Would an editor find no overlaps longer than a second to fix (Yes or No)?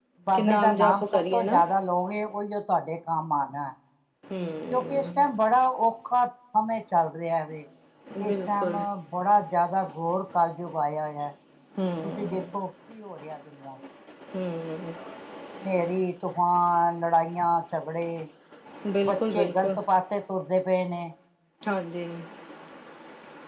No